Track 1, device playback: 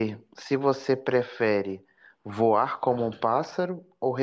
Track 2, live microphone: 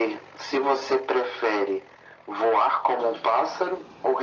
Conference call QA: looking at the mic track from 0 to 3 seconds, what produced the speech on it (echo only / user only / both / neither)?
echo only